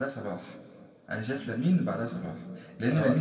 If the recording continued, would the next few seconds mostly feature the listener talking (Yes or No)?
No